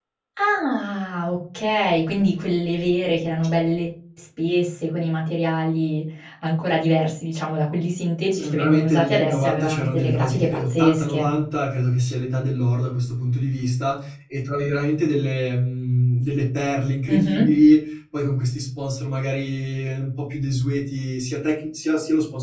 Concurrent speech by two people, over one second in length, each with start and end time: 8.4-11.3

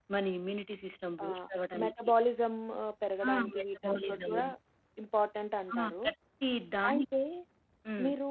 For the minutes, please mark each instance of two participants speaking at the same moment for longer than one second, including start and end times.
3.2-4.4

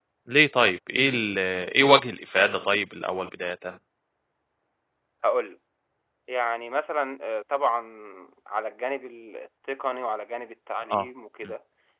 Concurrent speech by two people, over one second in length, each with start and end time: none

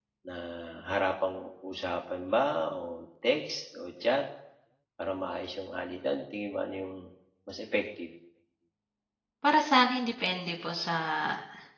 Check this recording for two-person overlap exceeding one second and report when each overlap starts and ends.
none

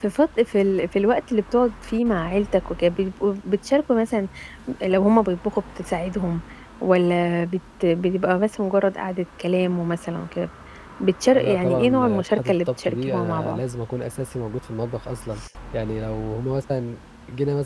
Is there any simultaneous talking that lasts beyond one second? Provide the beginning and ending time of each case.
11.3-13.6

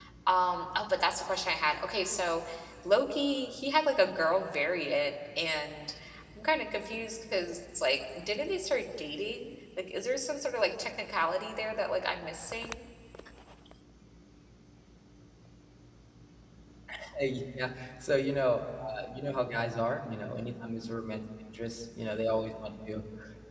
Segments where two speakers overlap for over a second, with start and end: none

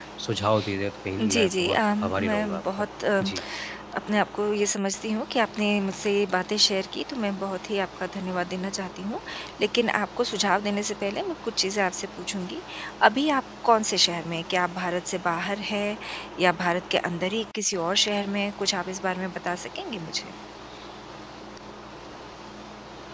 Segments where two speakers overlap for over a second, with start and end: 1.2-2.8

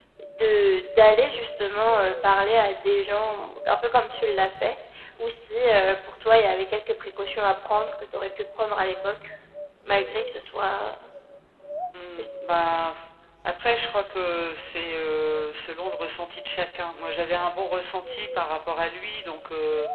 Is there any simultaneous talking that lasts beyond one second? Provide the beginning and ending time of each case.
none

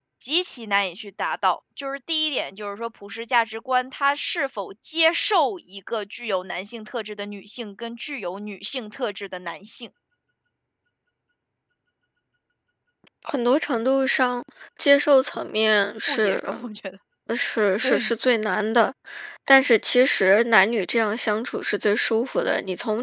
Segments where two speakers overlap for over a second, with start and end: none

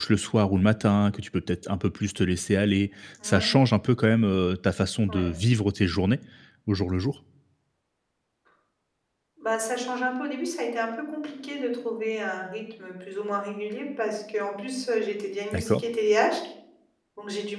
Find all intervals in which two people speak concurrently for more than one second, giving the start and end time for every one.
none

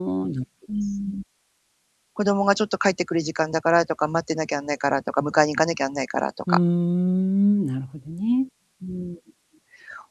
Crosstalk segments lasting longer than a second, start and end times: none

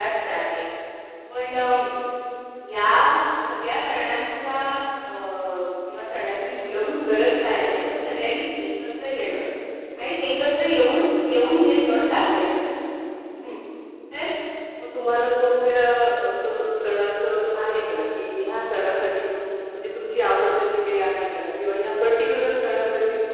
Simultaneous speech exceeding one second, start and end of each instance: none

